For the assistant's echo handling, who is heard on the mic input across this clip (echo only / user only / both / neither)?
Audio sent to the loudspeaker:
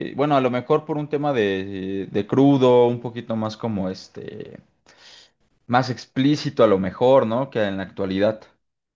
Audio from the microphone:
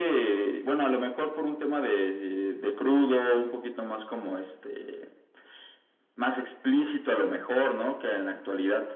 echo only